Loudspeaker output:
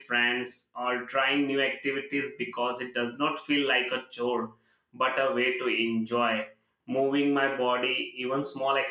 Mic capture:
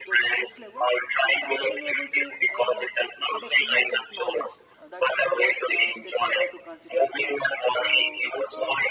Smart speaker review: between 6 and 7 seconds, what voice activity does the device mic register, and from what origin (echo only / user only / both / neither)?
both